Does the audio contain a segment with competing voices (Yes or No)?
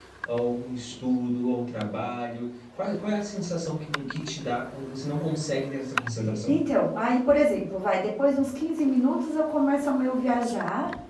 No